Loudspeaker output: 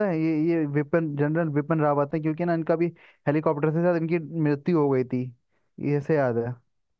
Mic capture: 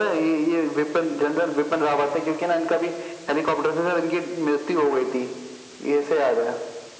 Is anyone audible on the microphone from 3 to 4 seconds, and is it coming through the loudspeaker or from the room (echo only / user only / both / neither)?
echo only